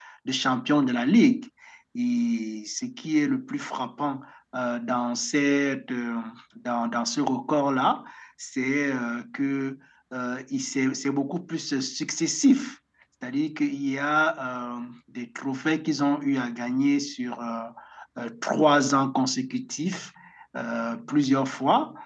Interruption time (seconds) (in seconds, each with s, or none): none